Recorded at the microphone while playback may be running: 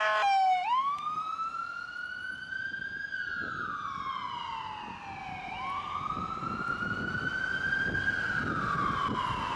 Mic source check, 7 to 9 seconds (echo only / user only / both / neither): neither